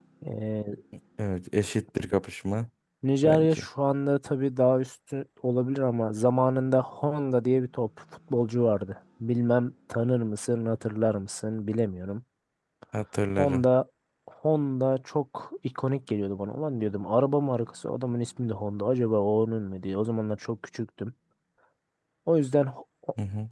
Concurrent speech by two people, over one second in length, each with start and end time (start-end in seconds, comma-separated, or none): none